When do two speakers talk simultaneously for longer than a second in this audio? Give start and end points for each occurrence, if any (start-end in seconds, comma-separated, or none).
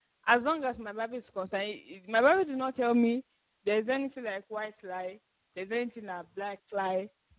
none